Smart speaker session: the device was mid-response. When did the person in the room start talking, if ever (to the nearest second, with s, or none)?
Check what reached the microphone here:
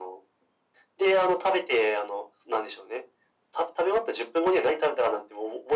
none